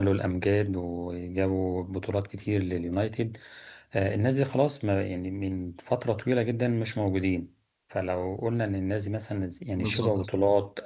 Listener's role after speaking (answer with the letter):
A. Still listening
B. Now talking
A